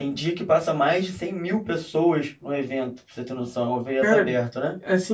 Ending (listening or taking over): taking over